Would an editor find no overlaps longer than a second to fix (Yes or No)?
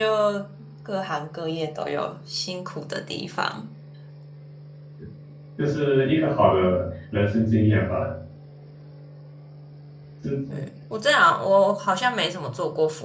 Yes